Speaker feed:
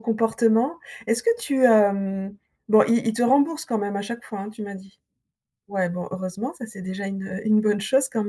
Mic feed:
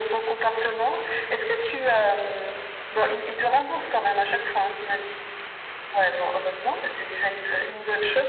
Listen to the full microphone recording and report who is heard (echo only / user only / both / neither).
echo only